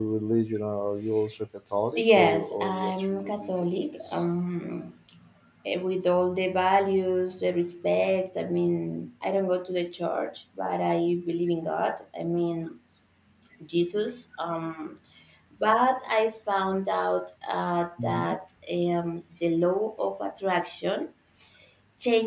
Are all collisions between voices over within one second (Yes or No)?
No